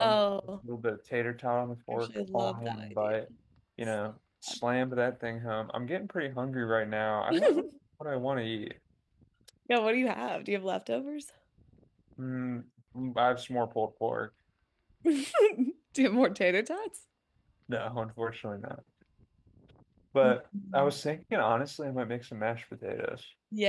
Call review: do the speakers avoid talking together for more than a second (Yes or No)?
No